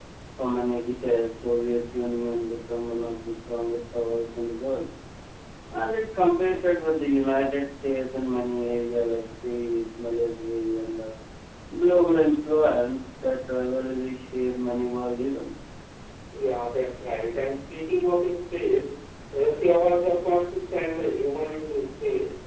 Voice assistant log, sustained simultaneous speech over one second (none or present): none